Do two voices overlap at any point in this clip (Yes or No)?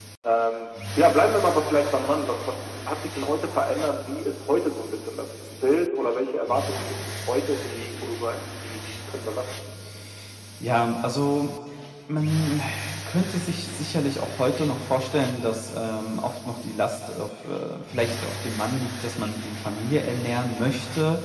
No